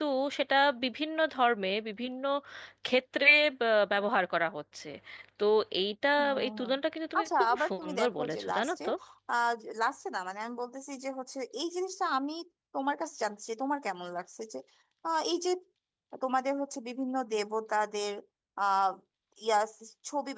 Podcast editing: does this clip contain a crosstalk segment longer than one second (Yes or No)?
Yes